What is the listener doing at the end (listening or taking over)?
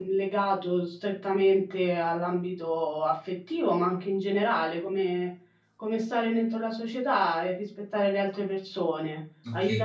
taking over